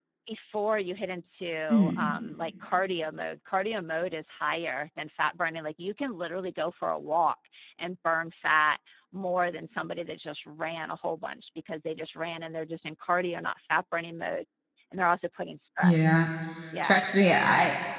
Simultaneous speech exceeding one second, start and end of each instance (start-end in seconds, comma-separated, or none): none